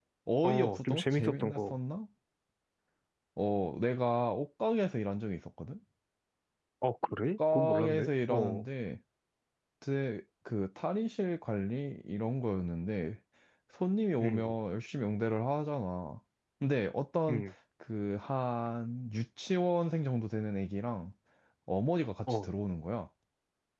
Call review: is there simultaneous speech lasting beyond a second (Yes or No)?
Yes